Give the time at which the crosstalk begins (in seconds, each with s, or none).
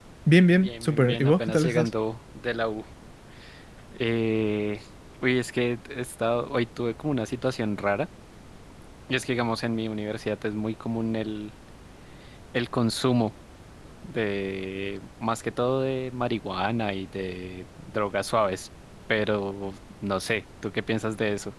0.6 s